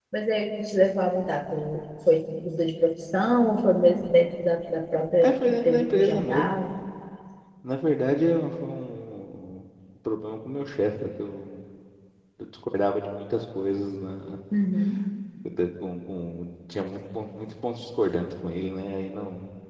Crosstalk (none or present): present